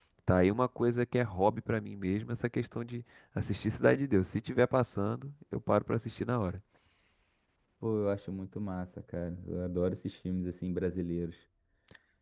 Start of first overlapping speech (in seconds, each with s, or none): none